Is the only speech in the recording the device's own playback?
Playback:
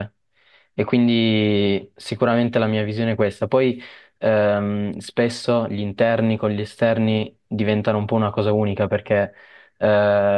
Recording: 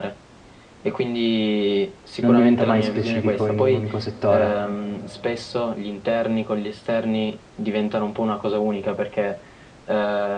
No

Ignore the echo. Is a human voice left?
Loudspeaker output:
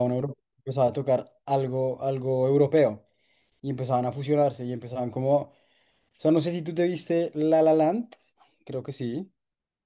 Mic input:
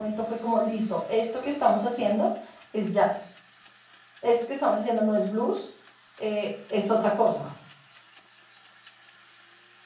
Yes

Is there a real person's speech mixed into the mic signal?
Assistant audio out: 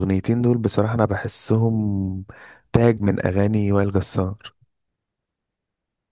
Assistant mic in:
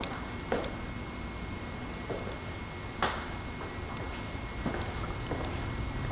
No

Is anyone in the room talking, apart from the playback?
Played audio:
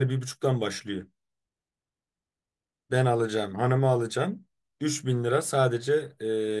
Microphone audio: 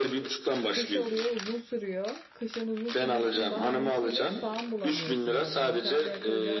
Yes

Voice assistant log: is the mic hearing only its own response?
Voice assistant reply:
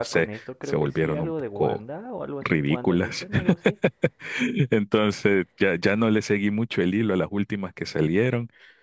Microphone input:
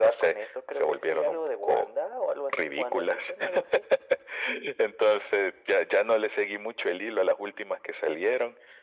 Yes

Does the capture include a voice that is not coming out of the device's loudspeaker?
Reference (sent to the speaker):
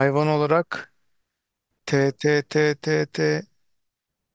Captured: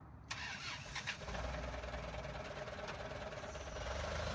No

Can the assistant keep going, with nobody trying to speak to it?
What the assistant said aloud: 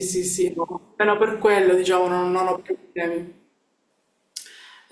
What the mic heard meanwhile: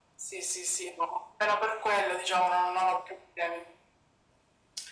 Yes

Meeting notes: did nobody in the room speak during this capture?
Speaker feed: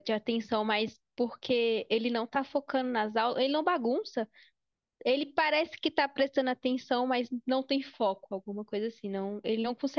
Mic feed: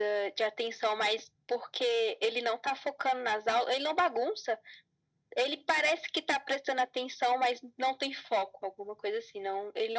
Yes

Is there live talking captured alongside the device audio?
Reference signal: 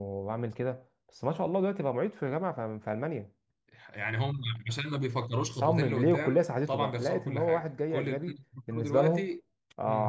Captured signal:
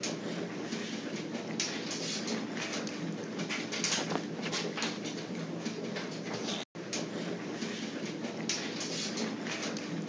No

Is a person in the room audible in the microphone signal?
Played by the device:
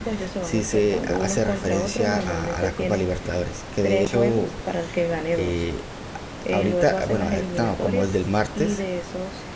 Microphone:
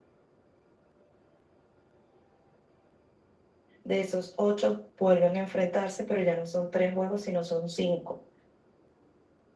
Yes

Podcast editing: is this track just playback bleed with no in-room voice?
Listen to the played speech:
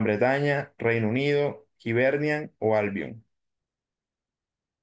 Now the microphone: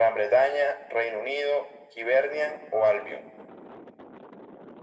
Yes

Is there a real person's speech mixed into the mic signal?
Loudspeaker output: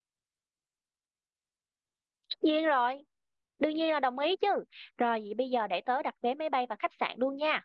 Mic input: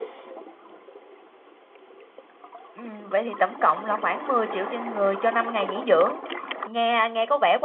Yes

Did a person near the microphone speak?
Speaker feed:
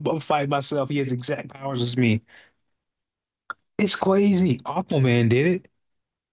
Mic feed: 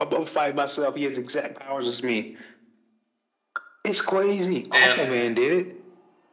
Yes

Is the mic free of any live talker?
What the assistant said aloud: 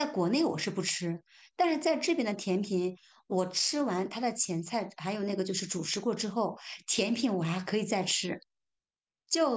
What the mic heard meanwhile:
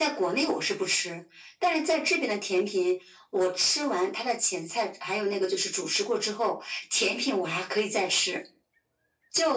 Yes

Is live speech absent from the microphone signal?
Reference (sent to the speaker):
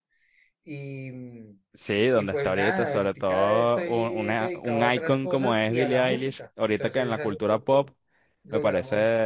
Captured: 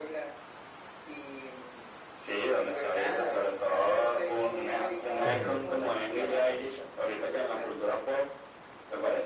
No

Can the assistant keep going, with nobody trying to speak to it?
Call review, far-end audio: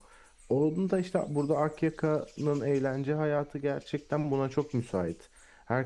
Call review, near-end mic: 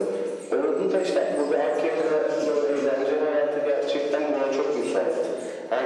Yes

